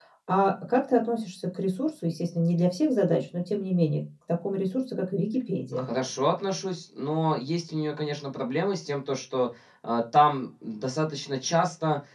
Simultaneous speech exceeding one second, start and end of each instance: none

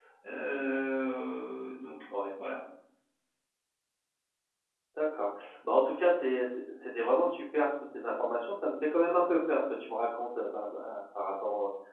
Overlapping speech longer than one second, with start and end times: none

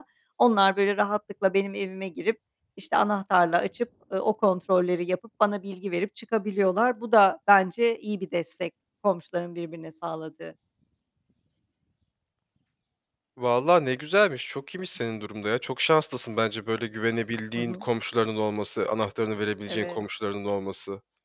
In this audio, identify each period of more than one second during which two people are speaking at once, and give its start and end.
none

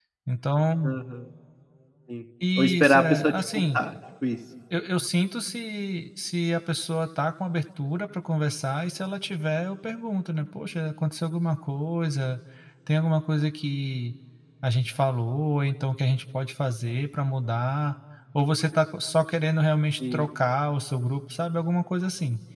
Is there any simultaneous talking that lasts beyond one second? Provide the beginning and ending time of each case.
2.6-3.8

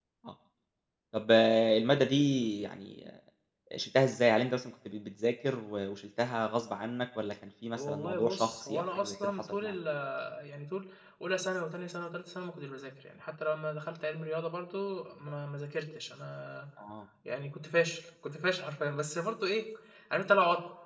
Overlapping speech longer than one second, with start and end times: 7.8-9.8

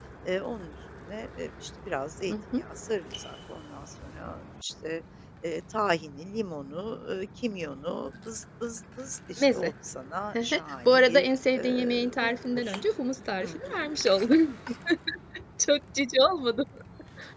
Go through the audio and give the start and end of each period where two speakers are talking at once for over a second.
10.8-12.8

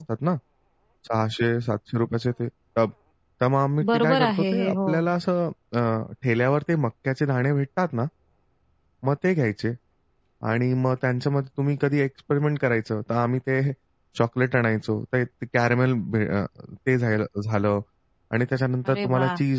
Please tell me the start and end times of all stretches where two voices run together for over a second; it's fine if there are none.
3.8-5.1

